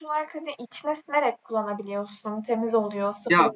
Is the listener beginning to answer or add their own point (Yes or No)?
Yes